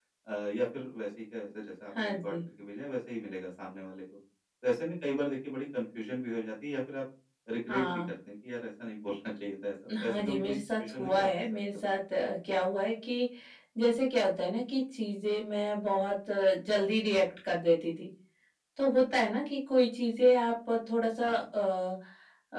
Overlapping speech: Yes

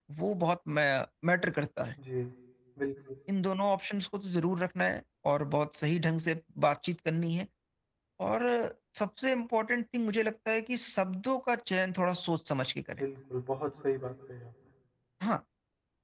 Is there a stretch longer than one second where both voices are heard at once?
No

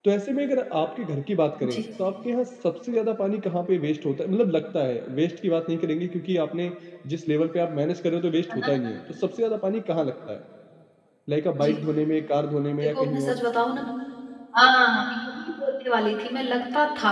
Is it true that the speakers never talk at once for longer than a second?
Yes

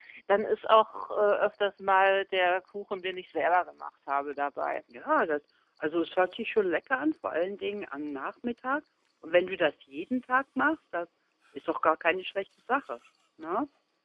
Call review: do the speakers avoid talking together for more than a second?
Yes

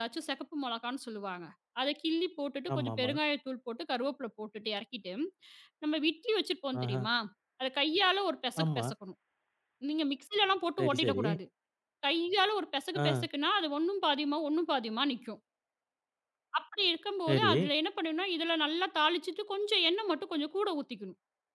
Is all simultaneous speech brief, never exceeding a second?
Yes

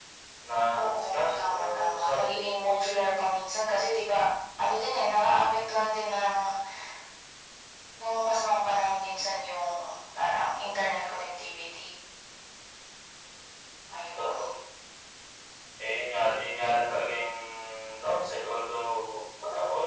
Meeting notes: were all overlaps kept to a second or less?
No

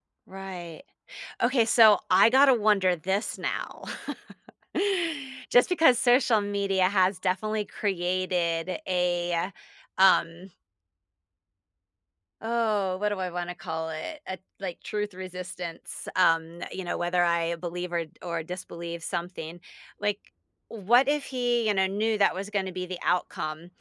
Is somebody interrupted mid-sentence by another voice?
No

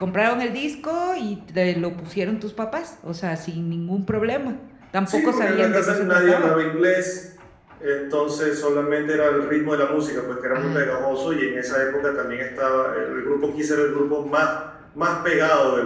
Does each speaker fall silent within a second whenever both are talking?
No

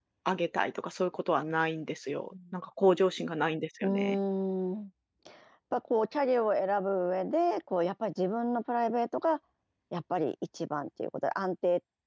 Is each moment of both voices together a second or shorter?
Yes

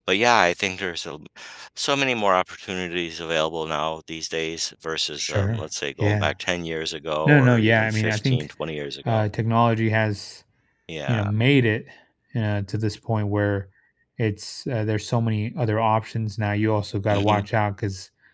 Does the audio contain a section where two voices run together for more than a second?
Yes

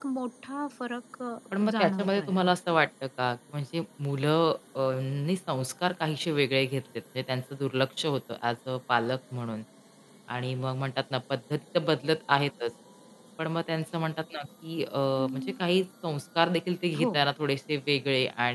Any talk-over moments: Yes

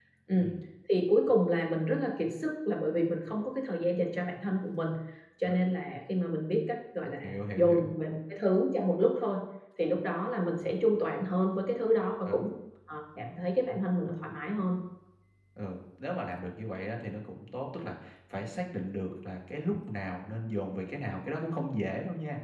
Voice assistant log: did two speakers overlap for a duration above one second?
No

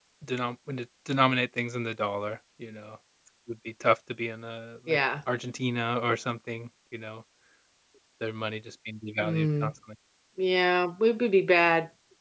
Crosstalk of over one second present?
No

